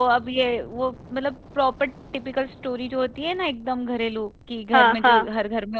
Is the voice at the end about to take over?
No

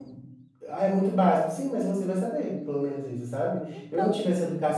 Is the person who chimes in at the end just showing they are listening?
Yes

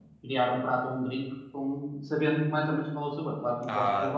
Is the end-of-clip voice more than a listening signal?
Yes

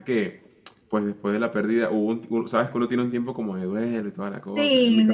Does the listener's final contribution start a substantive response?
Yes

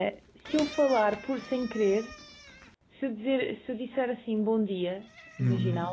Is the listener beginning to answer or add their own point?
No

